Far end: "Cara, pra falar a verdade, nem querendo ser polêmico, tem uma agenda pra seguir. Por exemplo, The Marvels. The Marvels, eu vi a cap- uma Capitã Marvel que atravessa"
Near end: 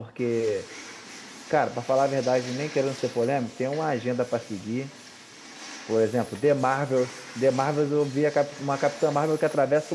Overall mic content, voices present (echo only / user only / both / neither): echo only